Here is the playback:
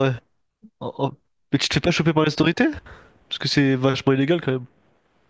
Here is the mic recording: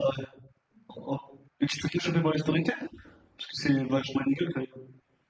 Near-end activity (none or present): none